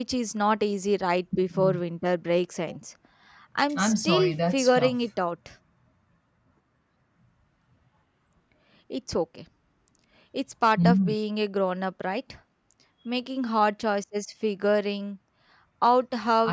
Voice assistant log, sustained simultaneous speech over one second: present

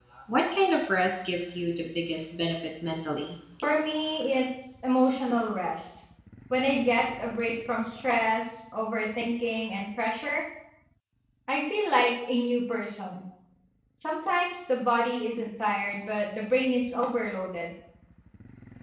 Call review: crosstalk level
none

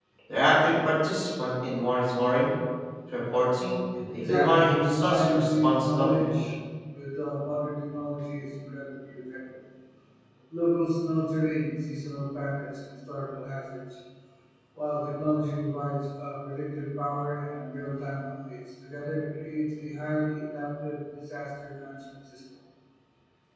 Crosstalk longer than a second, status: present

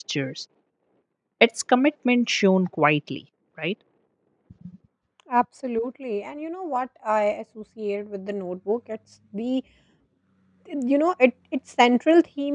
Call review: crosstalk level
none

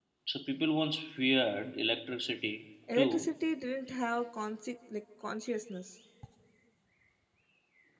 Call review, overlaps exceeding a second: none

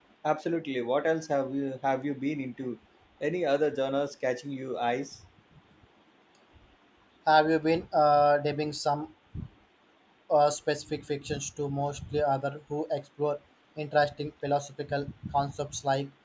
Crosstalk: none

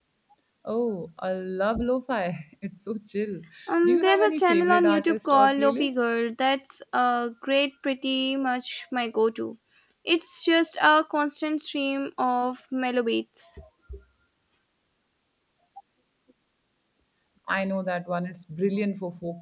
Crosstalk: present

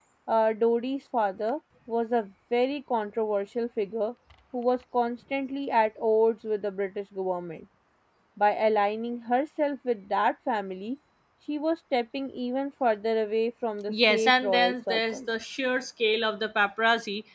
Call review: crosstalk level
present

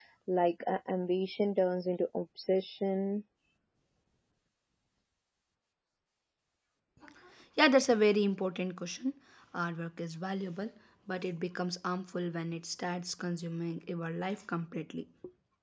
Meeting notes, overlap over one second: none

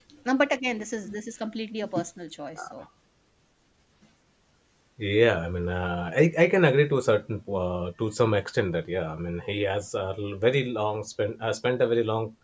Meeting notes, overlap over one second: none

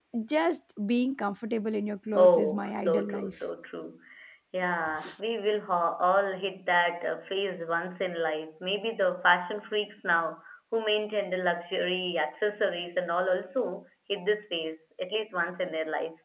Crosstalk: present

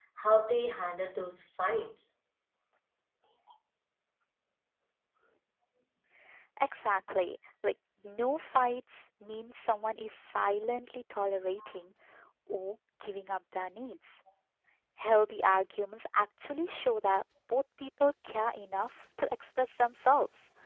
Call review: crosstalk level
none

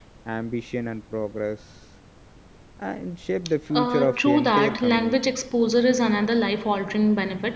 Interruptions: present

